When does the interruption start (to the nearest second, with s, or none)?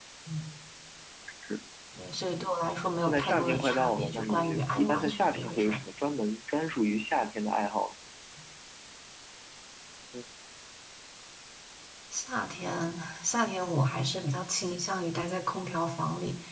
3 s